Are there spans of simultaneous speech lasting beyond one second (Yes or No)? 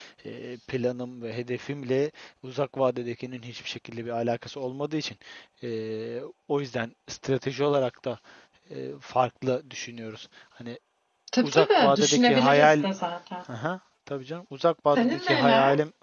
Yes